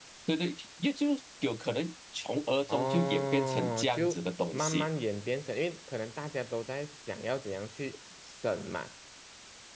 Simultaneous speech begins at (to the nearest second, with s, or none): 3 s